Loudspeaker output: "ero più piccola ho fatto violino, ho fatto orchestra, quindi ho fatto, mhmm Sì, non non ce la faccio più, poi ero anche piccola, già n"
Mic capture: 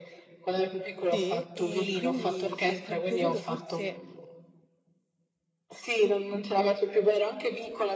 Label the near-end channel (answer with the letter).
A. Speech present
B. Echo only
A